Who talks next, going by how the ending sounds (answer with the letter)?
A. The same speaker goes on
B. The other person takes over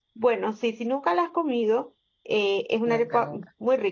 A